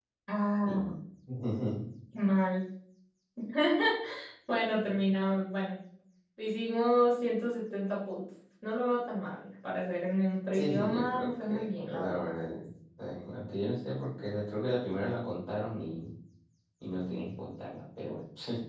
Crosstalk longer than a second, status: present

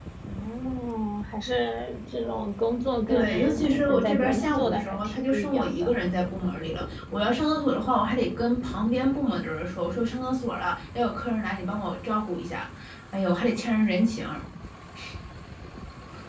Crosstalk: present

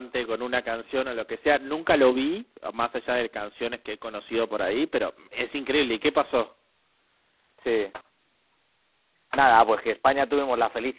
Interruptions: none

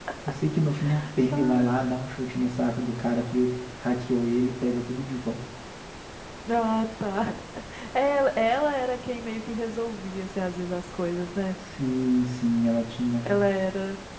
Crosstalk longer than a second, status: none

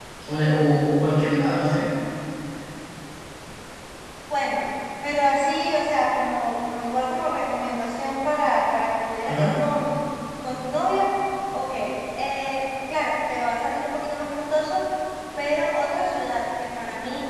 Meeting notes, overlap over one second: none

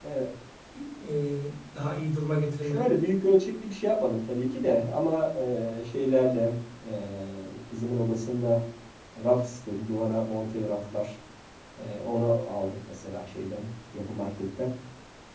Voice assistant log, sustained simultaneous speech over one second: none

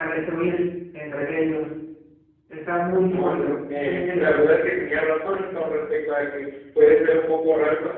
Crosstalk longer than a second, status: present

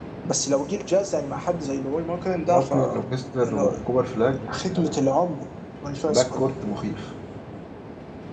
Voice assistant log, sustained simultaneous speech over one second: none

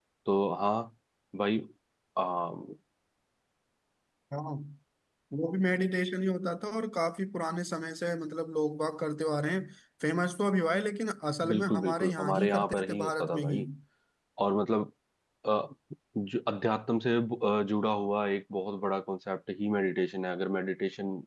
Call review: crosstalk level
present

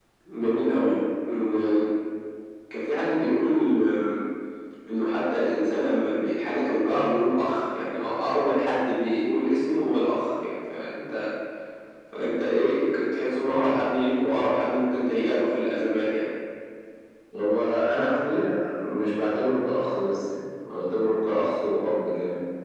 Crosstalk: none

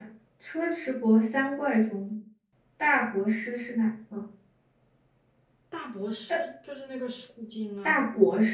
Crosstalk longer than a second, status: none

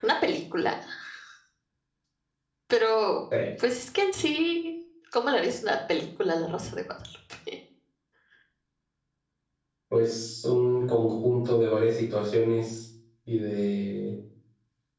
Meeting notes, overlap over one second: none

